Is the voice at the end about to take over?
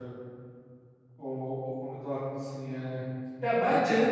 No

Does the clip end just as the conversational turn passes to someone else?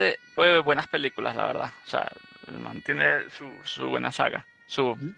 Yes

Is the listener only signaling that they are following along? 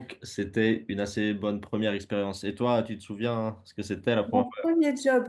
No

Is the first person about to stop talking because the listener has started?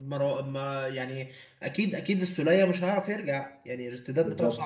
No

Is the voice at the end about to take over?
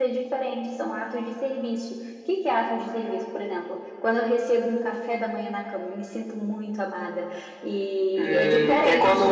Yes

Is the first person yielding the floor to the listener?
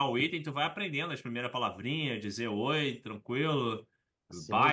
Yes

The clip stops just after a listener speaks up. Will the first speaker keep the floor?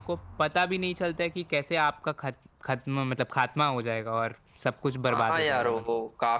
No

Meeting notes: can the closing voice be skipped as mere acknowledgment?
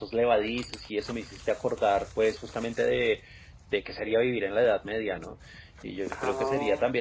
Yes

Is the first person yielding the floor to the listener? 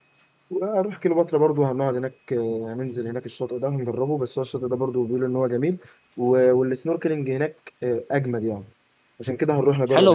Yes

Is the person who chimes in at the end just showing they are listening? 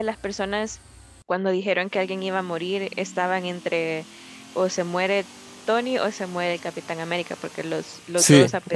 Yes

